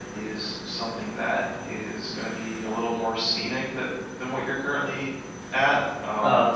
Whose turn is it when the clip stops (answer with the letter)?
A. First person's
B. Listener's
B